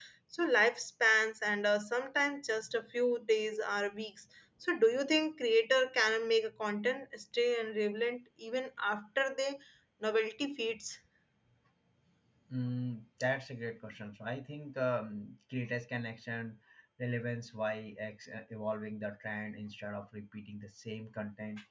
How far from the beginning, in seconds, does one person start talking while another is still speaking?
none

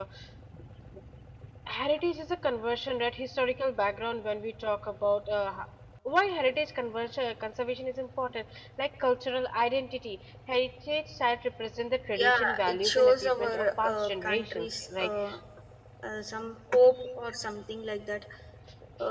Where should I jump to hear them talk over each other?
12.2 s

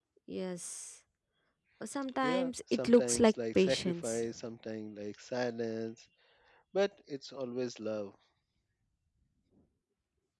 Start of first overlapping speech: 2.2 s

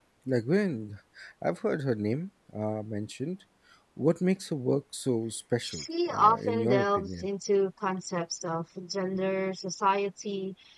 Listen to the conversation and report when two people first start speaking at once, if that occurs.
5.6 s

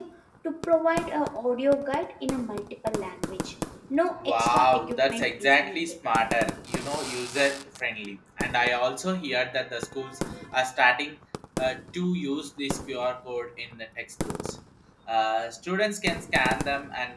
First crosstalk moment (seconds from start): 4.1 s

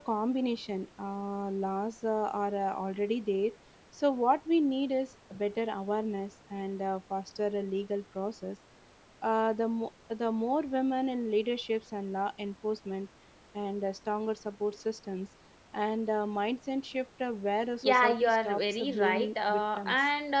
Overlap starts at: 17.8 s

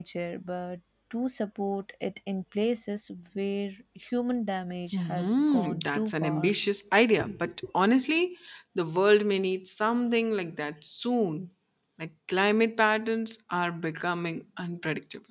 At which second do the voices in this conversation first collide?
4.9 s

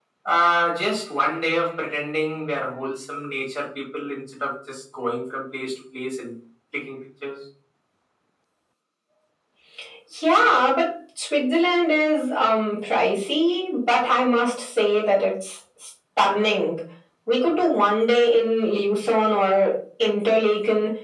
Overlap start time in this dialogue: none

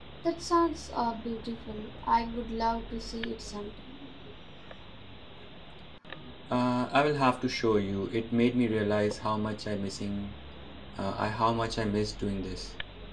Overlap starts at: none

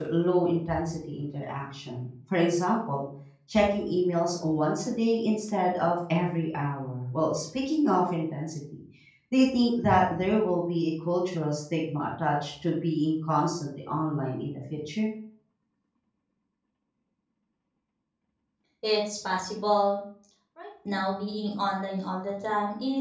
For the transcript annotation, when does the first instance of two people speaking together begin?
none

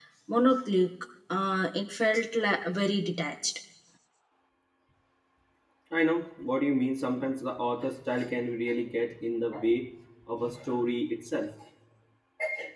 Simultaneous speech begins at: none

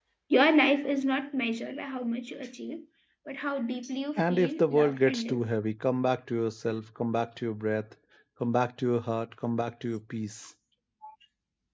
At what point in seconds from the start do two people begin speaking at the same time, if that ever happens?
4.2 s

